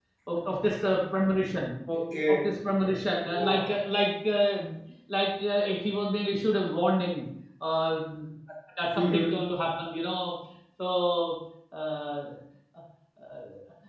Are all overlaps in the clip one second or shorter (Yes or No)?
Yes